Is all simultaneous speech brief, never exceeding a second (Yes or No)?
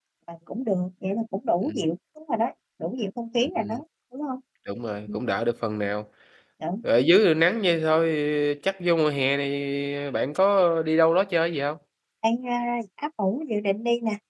Yes